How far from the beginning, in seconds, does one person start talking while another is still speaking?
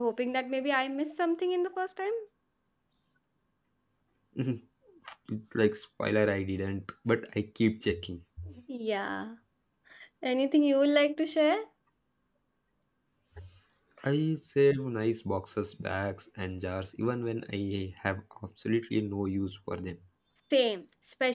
none

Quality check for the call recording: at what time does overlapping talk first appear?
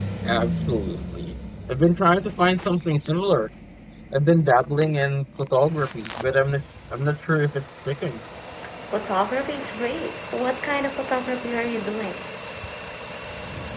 none

